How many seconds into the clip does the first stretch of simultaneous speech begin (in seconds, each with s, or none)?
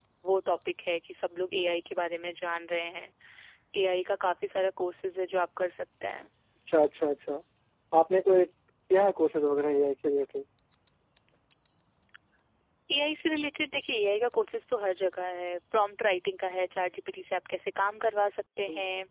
none